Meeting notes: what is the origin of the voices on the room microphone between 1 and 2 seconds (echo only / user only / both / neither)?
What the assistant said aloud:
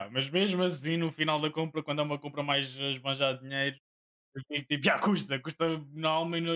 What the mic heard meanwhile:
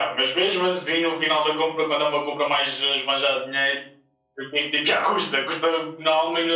echo only